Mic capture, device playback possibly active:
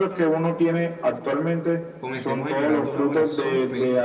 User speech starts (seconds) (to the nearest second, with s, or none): 2 s